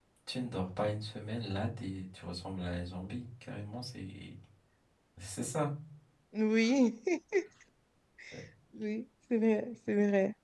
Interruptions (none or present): none